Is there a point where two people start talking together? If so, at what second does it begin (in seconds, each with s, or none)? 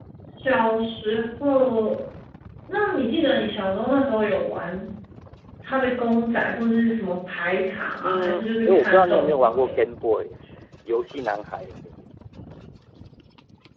8.0 s